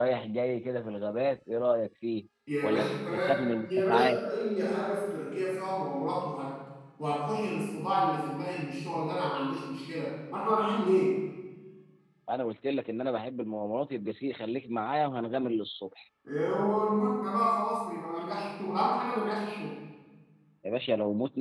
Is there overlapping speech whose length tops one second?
Yes, from 2.5 s

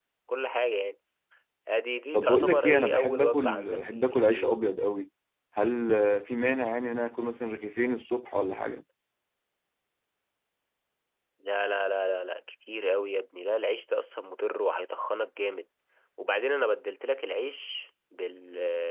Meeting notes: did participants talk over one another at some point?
Yes, from 2.1 s

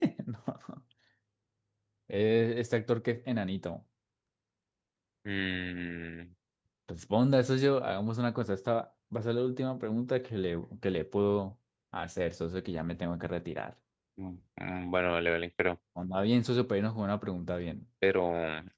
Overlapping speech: No

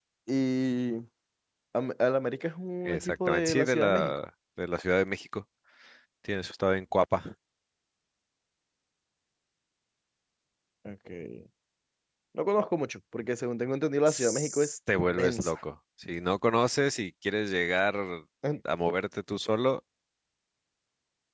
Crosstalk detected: Yes, from 2.8 s

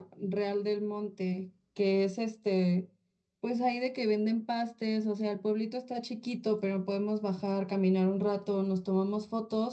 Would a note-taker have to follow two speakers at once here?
No

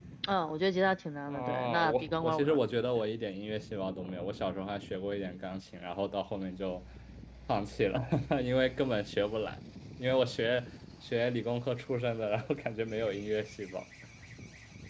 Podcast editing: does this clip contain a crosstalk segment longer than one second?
Yes, from 1.3 s

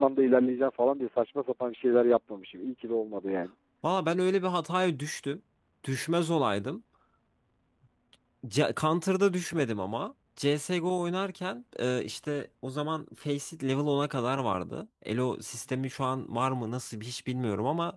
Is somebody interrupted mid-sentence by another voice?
No

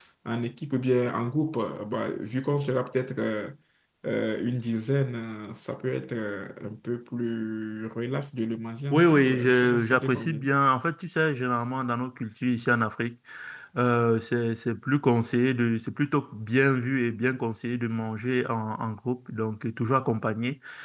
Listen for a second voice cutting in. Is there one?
Yes, from 8.9 s

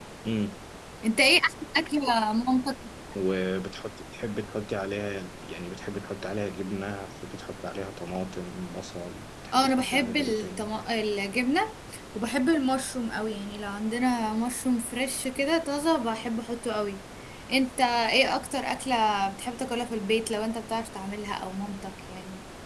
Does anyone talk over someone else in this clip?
Yes, from 9.5 s

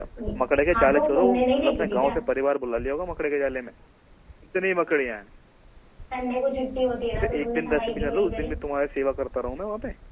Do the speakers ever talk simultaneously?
Yes, from 0.7 s

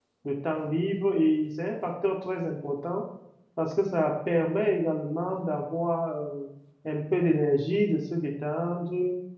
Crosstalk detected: No

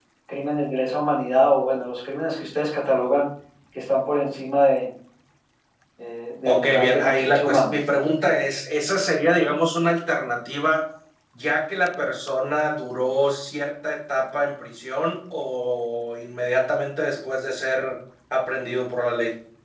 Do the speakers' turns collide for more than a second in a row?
Yes, from 6.4 s

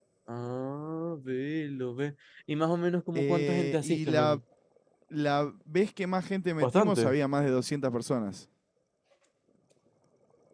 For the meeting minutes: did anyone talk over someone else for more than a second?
Yes, from 3.1 s

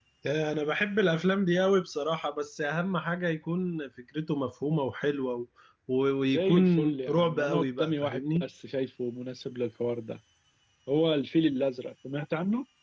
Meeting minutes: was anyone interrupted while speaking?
Yes, from 6.3 s

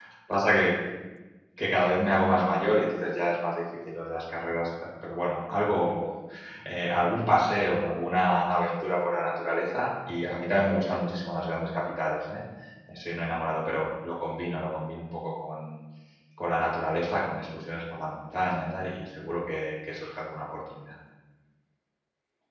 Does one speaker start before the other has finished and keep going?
No

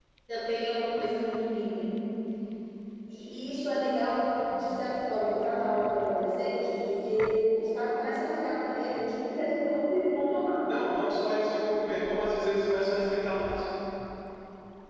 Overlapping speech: No

